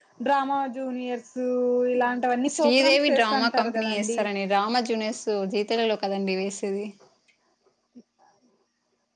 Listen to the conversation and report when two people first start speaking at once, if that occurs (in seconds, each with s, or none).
2.5 s